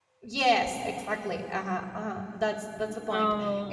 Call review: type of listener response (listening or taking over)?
listening